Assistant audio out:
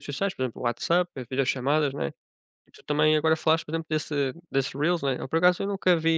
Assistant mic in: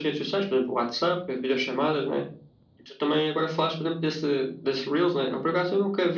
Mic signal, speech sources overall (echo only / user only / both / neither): echo only